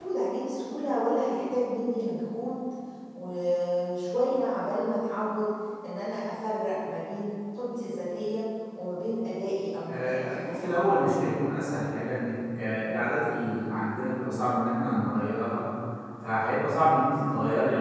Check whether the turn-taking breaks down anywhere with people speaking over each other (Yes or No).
Yes